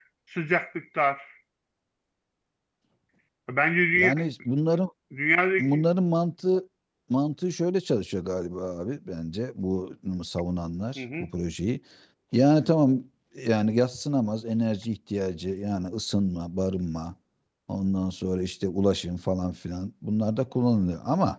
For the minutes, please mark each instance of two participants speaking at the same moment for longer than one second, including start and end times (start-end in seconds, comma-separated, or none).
none